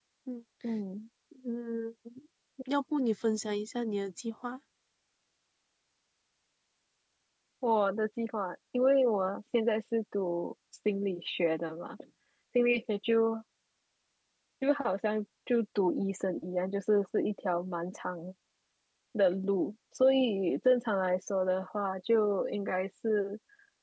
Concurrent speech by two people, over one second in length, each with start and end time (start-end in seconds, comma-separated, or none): none